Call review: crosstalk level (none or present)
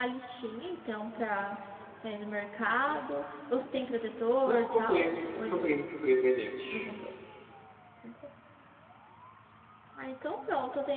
present